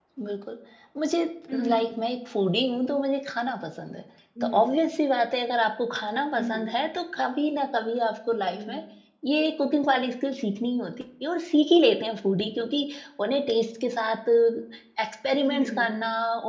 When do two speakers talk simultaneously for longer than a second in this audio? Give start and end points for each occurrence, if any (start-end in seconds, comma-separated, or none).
none